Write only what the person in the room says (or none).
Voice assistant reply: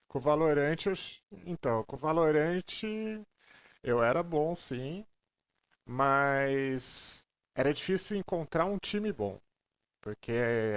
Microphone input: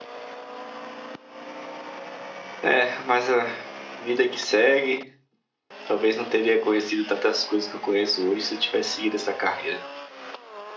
É, mas a vida que segue. Talvez não teria conhecido tantas coisas que eu conheço hoje se eu tivesse seguido essa carreira.